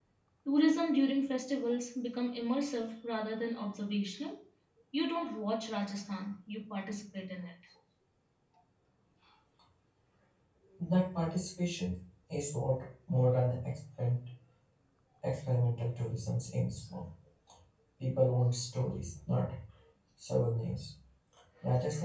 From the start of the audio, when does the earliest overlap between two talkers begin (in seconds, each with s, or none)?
none